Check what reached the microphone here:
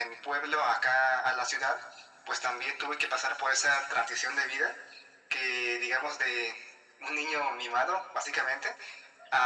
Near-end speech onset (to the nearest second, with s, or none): none